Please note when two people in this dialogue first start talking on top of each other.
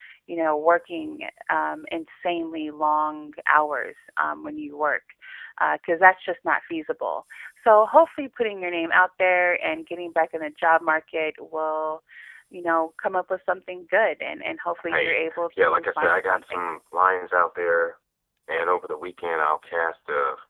14.9 s

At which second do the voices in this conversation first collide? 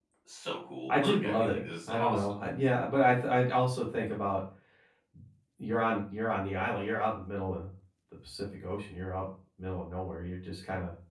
0.9 s

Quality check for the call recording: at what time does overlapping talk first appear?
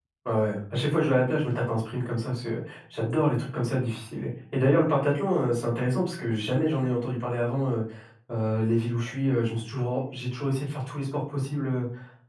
none

